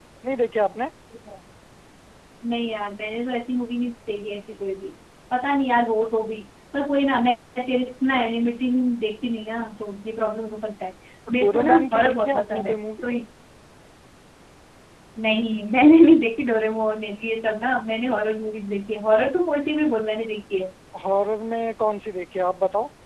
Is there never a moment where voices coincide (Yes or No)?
No